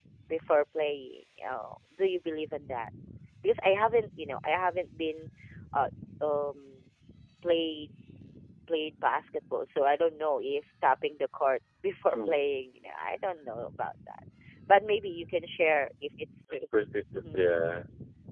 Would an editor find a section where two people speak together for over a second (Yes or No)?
No